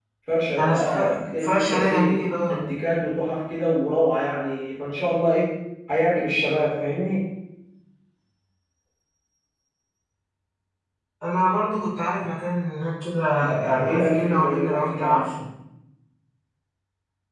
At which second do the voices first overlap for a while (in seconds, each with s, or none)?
0.6 s